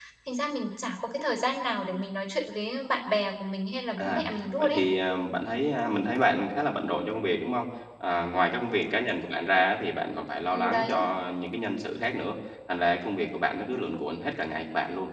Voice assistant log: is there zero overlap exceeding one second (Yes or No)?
Yes